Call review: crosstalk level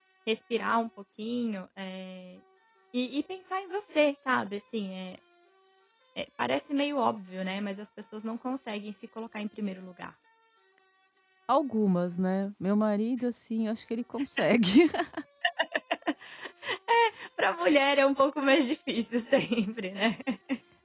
none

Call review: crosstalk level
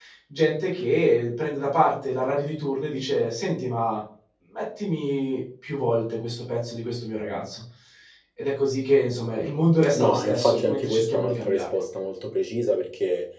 present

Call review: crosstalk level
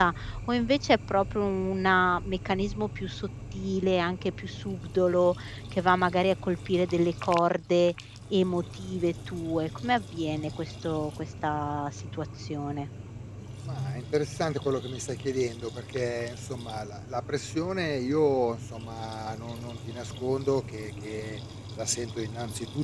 none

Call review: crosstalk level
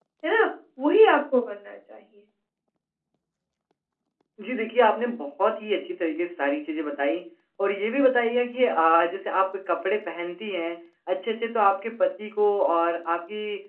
none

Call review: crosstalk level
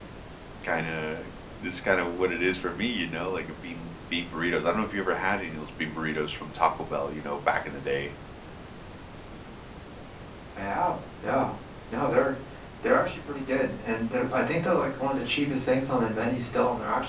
none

